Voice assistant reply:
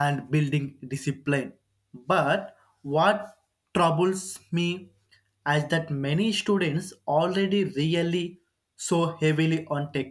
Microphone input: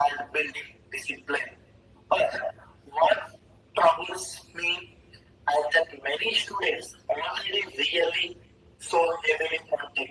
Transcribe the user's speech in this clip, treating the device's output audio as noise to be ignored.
none

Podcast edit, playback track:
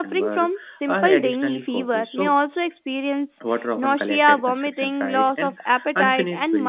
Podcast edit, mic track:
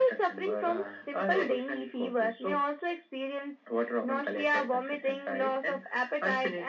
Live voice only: uh,

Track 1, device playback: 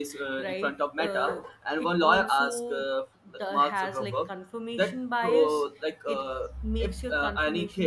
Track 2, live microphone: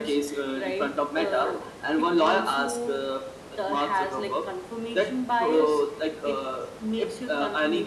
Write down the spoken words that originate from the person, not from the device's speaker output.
none

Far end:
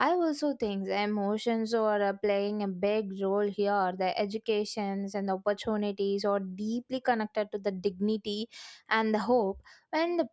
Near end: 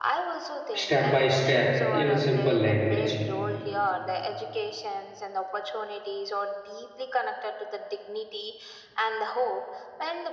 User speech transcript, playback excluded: step by step in a simple language

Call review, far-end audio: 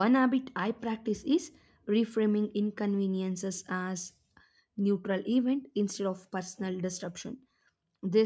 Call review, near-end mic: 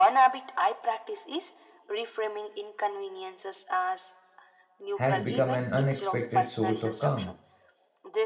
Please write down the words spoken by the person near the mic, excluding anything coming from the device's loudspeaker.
has become an unexpected source of calm.

